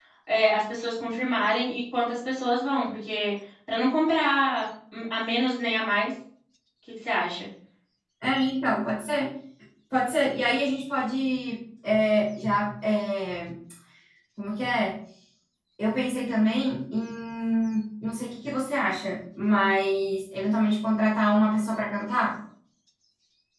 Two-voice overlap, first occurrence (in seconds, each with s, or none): none